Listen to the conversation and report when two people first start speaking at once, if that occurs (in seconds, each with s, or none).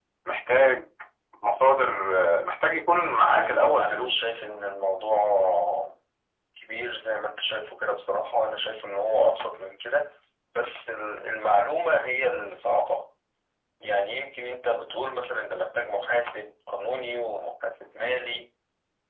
3.1 s